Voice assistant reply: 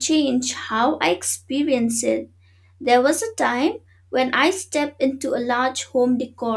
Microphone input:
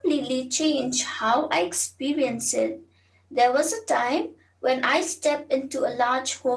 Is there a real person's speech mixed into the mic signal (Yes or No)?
No